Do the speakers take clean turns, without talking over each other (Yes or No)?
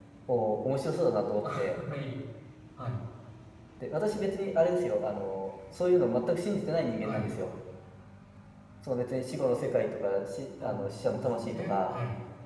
No